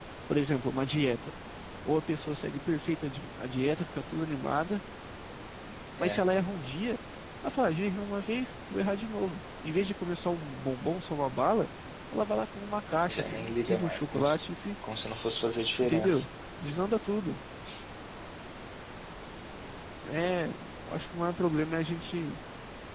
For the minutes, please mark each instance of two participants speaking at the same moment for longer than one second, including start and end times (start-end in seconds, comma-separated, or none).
13.1-14.4